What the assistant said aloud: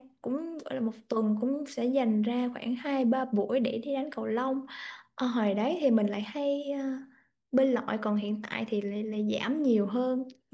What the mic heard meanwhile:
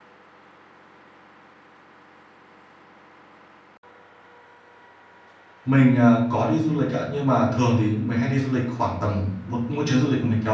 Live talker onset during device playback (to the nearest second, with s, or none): 6 s